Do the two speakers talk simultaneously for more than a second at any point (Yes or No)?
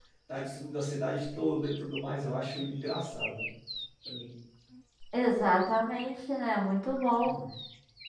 No